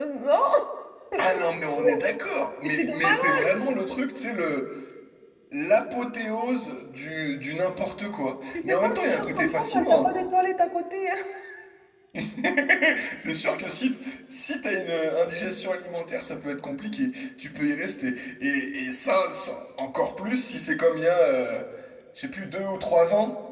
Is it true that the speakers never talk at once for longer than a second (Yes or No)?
No